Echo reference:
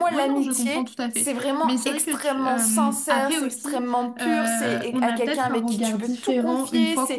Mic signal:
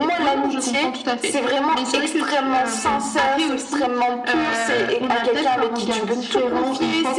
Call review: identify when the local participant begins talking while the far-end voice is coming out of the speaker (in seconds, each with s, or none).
none